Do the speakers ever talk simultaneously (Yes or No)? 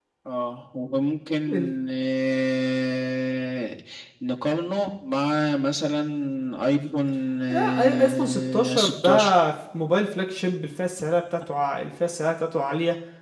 Yes